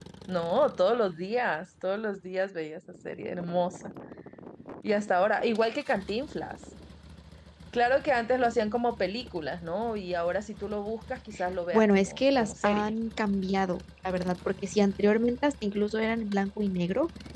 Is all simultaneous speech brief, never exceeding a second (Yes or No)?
No